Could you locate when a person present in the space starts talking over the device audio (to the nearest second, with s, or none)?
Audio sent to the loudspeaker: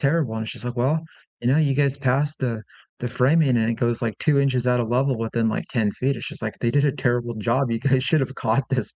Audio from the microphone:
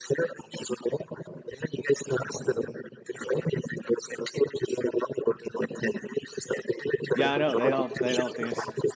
7 s